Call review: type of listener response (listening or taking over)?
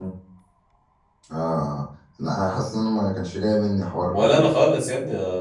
taking over